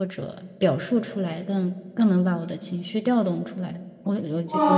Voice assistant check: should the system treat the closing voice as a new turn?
Yes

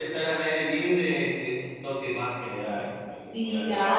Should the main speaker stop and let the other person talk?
Yes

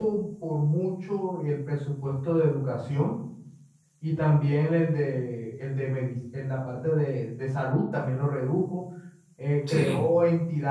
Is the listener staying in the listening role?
Yes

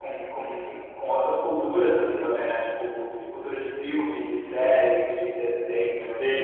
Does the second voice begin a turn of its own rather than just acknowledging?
Yes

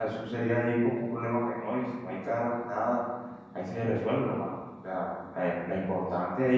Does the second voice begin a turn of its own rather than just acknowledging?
No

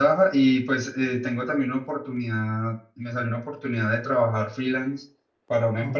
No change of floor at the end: Yes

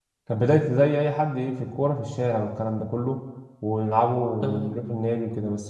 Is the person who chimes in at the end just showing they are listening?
Yes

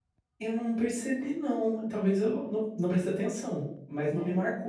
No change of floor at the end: Yes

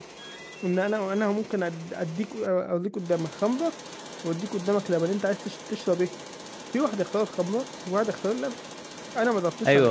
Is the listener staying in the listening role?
No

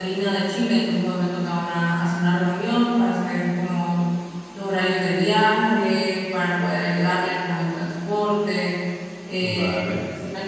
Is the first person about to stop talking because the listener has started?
No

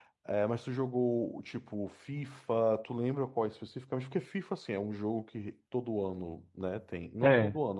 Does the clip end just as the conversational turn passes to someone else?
No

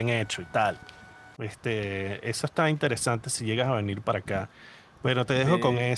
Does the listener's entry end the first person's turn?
No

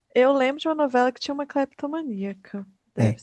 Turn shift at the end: Yes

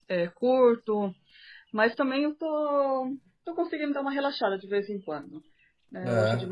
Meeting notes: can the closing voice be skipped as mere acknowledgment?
Yes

